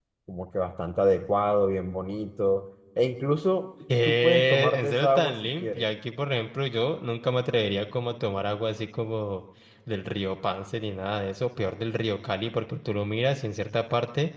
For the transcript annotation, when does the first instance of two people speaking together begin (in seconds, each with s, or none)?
3.9 s